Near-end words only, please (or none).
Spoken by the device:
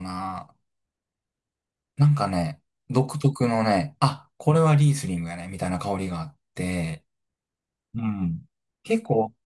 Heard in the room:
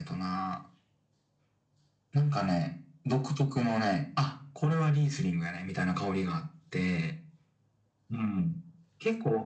none